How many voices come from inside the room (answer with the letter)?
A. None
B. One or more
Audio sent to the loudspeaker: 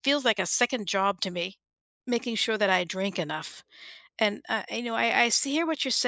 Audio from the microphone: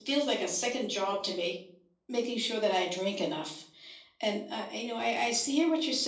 A